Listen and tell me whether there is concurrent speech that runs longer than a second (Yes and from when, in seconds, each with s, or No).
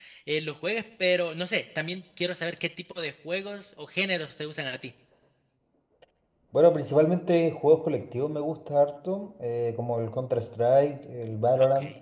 No